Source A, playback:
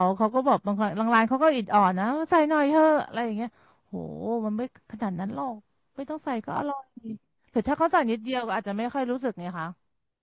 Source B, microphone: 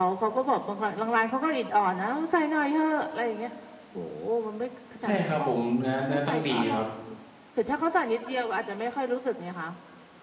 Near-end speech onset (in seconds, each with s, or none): 5.0 s